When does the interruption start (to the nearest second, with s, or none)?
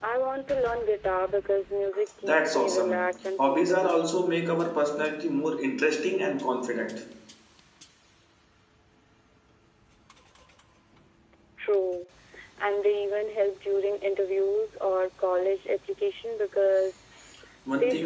2 s